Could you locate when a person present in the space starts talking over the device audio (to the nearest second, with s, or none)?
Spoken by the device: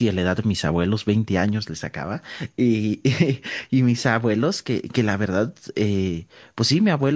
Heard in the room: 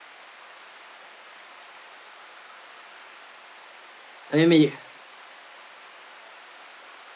4 s